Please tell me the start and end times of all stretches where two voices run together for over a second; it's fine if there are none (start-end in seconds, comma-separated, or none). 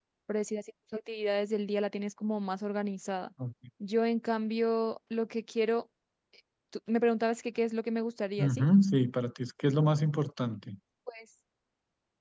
none